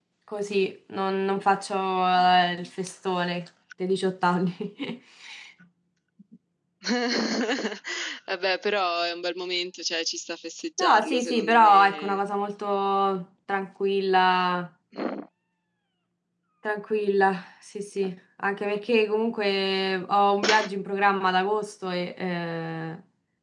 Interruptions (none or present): present